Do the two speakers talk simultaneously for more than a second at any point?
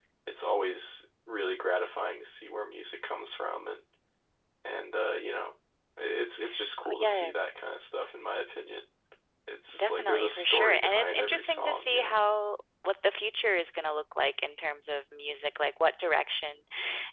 Yes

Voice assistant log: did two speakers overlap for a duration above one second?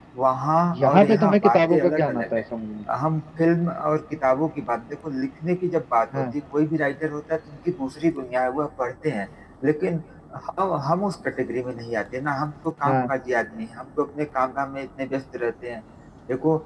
Yes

